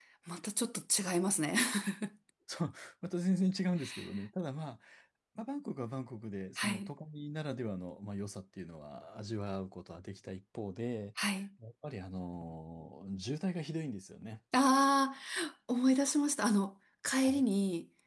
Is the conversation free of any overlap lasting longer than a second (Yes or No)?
Yes